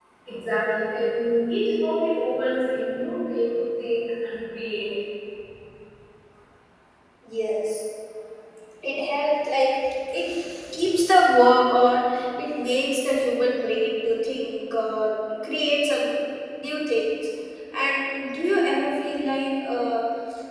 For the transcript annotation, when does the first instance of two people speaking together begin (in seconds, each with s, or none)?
none